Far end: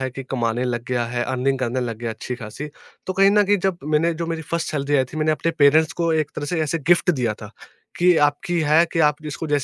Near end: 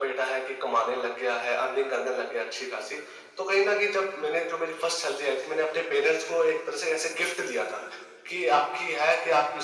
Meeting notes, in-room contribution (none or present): none